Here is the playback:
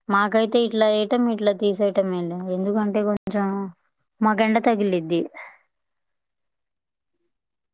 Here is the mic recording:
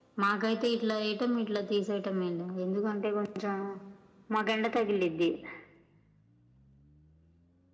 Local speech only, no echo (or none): none